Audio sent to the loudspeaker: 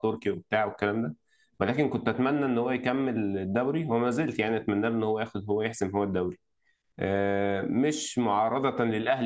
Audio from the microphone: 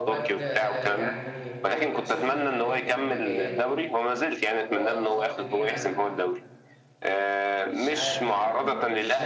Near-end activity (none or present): present